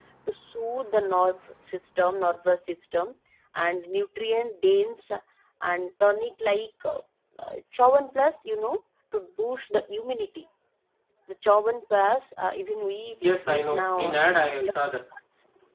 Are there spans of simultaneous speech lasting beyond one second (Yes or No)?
Yes